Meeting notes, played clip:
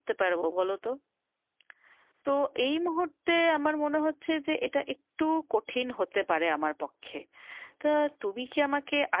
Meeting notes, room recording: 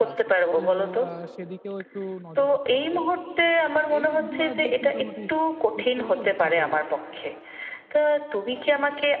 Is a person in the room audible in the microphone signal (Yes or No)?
Yes